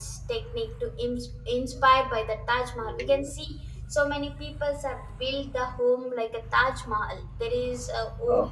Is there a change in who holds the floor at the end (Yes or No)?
No